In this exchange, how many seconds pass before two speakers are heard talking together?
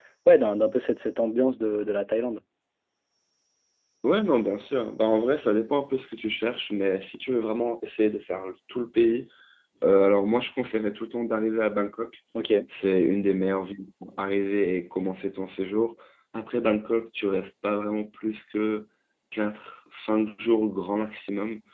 none

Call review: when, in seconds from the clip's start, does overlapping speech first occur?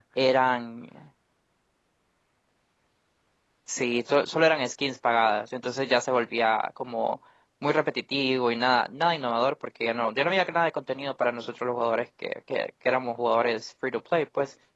none

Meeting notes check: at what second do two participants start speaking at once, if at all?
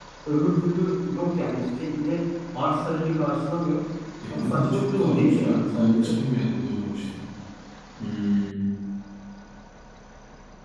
4.3 s

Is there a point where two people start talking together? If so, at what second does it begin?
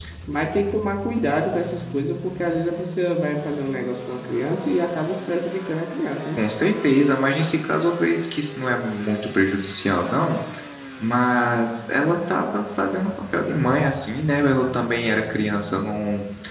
none

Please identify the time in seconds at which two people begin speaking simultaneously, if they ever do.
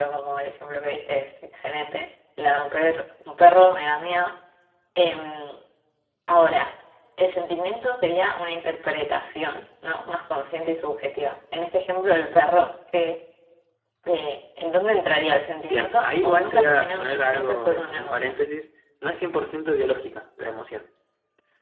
15.7 s

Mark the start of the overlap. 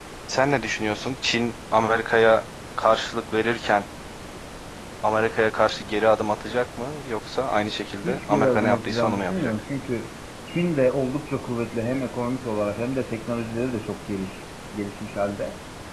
8.0 s

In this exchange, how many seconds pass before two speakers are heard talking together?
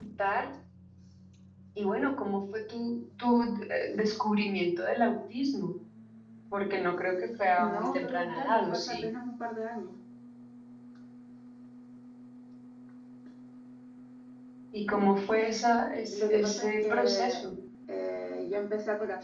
7.7 s

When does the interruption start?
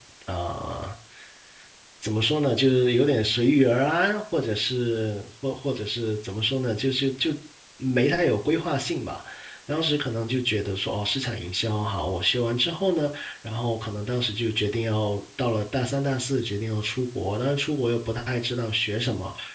none

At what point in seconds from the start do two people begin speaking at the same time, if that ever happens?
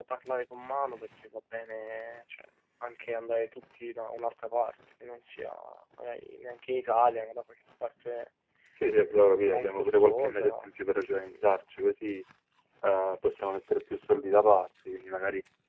9.4 s

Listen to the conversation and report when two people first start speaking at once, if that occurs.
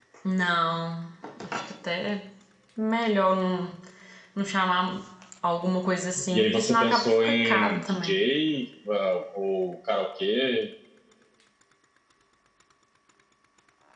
6.3 s

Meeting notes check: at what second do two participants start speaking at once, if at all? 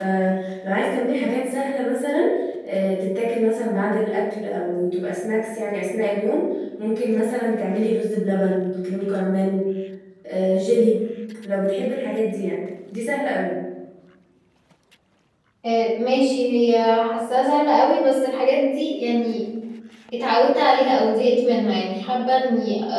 none

